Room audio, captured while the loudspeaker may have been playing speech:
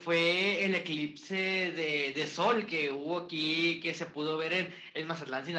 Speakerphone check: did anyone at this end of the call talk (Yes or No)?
No